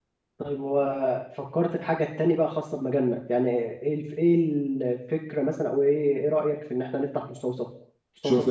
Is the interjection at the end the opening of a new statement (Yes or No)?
Yes